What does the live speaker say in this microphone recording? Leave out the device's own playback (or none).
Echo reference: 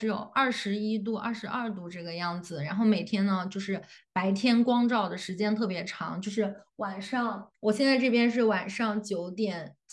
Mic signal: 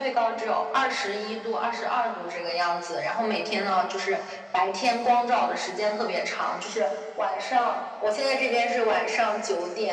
none